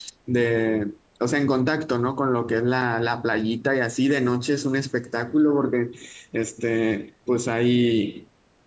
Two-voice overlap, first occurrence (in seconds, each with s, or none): none